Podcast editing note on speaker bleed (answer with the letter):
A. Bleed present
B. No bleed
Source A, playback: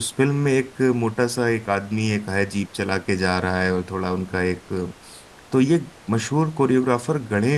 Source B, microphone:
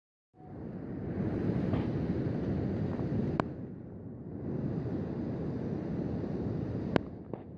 B